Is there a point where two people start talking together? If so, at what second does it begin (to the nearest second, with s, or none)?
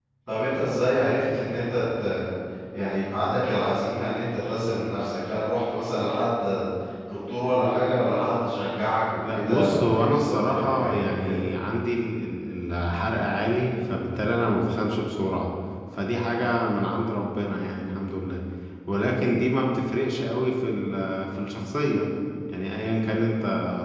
9 s